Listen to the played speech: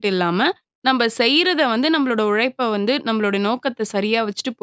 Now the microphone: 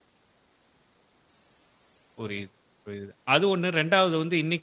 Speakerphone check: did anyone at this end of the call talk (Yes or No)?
Yes